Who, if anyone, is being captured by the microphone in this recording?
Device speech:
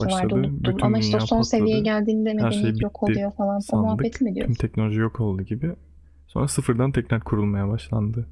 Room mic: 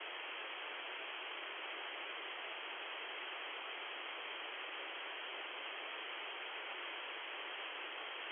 neither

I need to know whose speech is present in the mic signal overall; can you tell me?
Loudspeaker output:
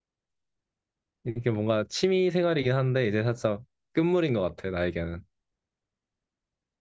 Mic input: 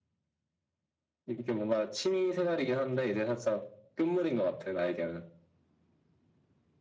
echo only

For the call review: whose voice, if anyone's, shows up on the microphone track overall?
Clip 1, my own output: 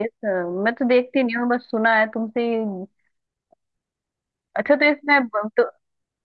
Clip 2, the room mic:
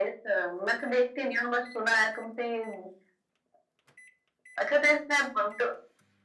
echo only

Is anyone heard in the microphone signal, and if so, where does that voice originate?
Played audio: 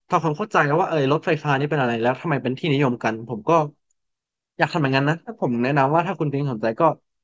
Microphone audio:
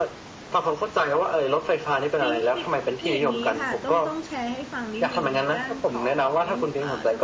both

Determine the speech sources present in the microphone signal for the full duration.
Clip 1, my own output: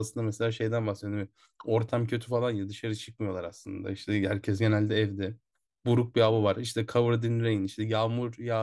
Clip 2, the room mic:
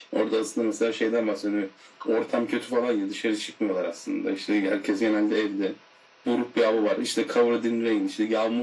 echo only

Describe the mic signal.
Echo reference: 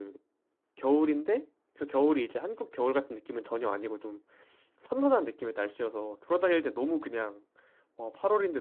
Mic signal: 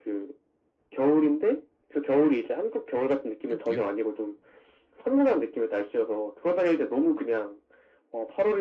both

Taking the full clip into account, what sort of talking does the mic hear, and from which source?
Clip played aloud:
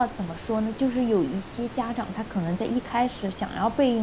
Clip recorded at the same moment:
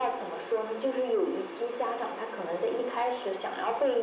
echo only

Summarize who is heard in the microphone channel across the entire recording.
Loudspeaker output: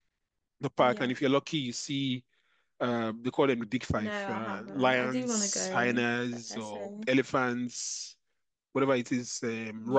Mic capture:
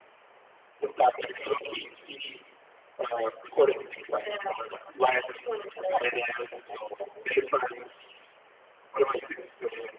echo only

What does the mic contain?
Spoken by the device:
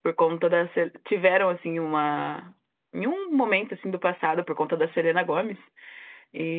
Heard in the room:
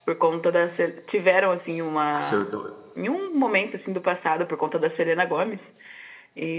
both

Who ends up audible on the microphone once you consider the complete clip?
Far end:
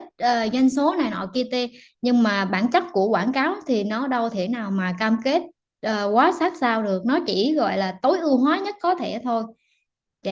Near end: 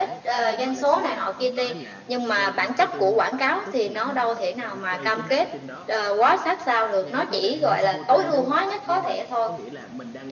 both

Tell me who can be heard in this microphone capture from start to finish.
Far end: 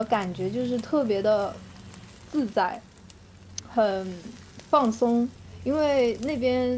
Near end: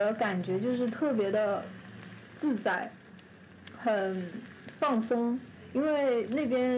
echo only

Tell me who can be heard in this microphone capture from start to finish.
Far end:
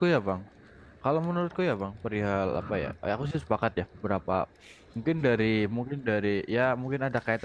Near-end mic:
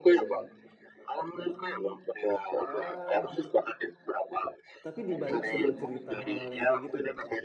both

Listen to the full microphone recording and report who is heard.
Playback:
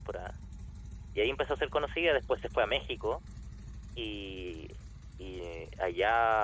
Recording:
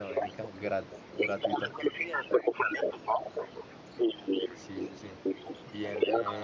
both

